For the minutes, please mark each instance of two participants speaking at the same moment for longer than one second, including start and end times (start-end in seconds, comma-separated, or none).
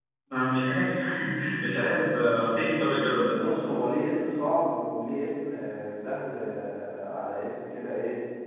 none